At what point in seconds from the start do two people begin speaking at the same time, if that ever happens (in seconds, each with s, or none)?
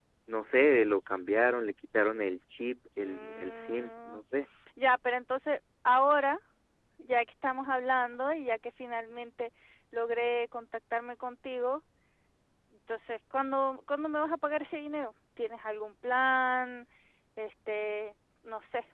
3.0 s